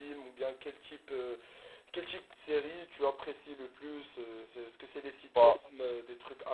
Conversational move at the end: listening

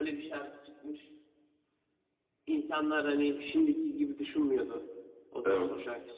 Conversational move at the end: listening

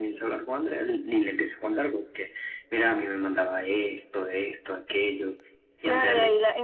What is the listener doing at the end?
taking over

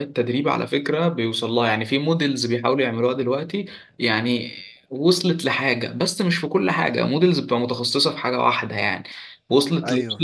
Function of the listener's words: listening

